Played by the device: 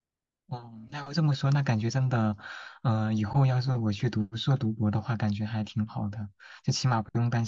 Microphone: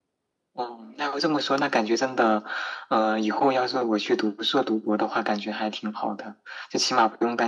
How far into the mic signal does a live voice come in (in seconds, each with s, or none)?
none